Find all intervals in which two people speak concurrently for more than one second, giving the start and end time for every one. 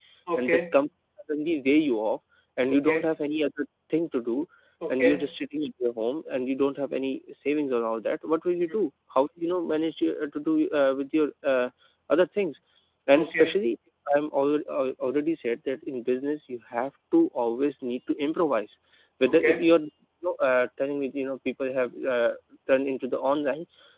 none

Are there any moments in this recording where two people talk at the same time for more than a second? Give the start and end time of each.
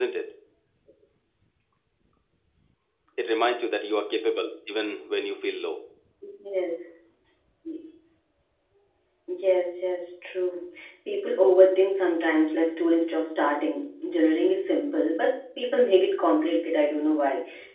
none

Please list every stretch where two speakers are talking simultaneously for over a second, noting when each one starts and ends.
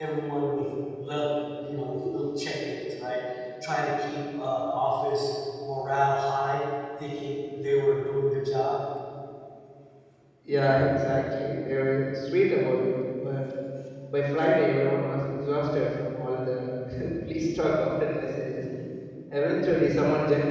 none

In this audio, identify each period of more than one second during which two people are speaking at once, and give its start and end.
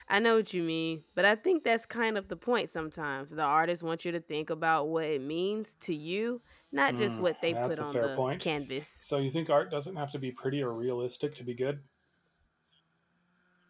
6.9-8.5

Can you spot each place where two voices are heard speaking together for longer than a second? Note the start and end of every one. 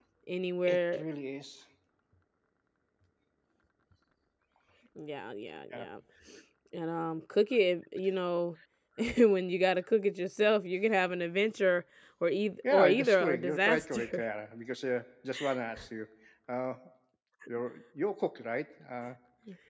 12.7-14.2

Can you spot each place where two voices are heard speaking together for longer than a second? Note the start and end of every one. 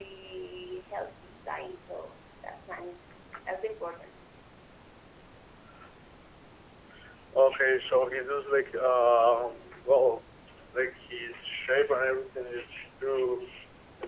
none

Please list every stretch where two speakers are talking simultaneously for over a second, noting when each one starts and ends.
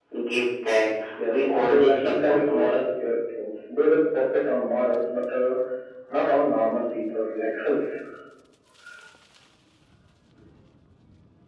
1.3-2.8

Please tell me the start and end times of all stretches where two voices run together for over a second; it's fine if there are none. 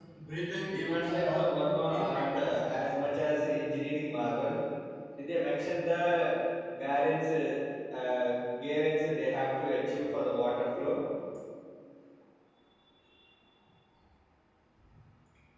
0.7-2.6

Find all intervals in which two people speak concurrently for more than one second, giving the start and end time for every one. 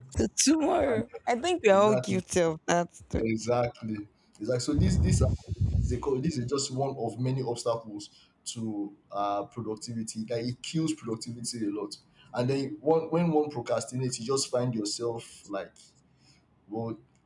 none

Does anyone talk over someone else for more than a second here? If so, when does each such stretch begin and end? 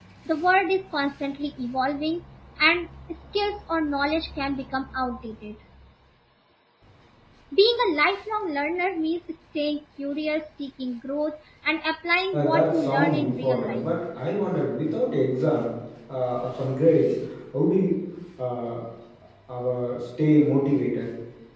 12.3-13.9

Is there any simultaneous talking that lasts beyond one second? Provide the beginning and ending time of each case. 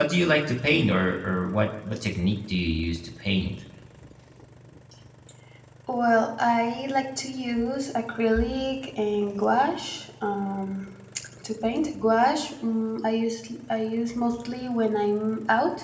none

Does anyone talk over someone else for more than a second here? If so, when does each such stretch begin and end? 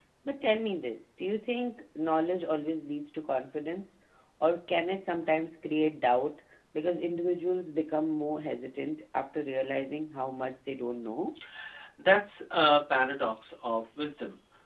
none

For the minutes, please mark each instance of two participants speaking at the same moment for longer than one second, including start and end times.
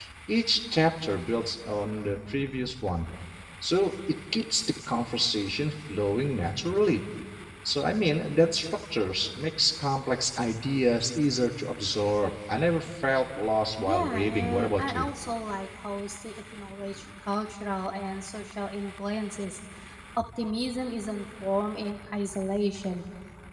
13.8-15.0

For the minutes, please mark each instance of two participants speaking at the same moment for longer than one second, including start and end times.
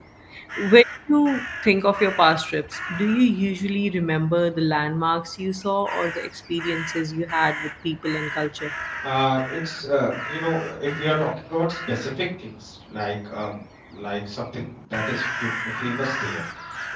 none

